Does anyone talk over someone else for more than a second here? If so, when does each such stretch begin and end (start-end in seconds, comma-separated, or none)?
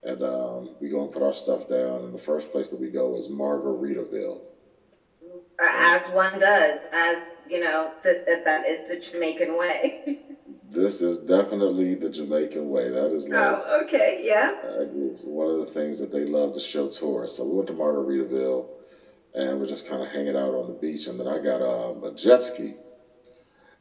none